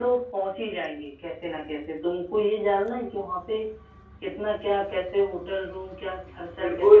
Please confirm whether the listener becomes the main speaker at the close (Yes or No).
Yes